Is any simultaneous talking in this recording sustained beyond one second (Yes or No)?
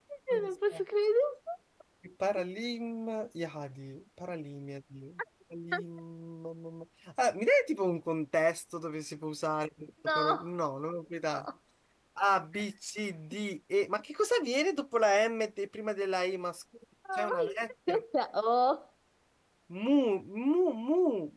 No